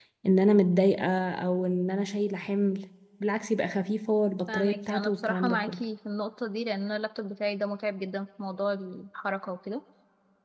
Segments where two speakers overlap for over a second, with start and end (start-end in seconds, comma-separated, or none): 4.5-5.8